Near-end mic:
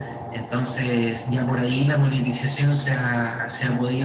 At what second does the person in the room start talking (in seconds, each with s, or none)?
none